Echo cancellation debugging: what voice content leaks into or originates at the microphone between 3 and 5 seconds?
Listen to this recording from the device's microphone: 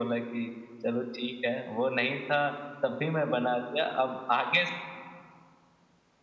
echo only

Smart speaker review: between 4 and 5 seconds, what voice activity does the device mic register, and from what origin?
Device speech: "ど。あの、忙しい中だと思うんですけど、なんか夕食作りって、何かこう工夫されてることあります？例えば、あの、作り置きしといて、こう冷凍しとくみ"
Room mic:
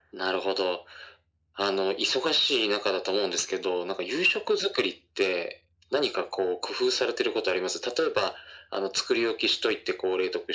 echo only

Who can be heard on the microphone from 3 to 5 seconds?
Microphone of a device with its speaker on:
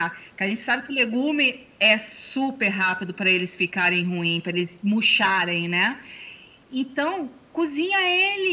echo only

